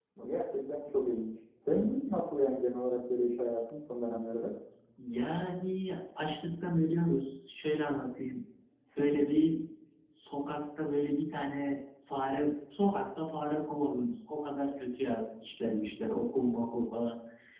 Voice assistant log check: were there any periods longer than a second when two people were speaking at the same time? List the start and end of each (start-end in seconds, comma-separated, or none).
none